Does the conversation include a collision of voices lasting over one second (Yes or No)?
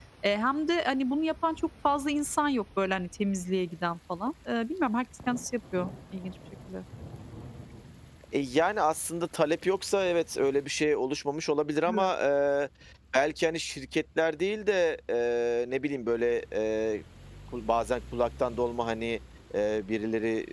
No